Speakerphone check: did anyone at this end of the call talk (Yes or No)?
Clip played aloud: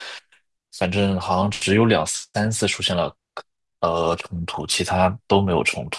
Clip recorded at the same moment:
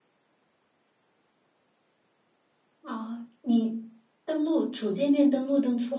Yes